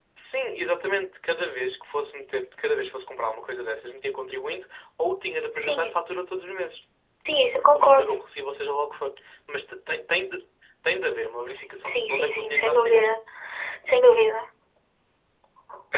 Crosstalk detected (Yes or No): Yes